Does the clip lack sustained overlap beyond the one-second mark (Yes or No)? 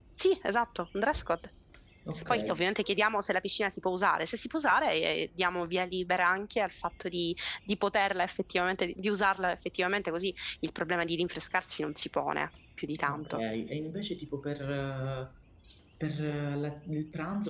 Yes